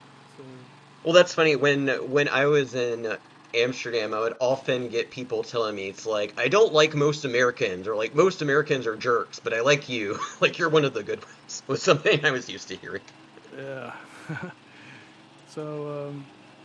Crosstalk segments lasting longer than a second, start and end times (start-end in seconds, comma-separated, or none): none